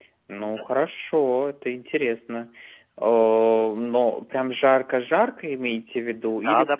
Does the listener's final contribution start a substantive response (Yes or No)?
Yes